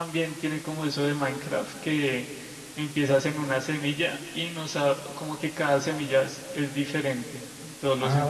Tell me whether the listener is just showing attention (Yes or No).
No